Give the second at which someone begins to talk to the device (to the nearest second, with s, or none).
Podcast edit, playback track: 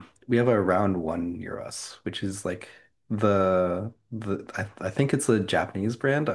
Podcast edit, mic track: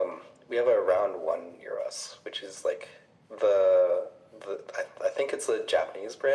none